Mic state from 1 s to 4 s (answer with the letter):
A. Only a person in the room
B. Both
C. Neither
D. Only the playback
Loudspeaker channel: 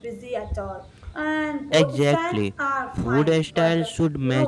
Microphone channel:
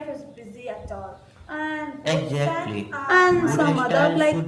B